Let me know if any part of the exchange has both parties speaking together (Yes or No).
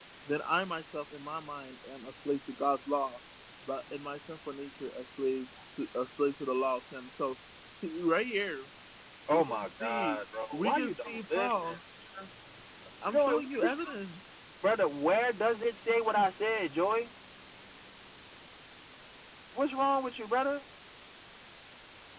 Yes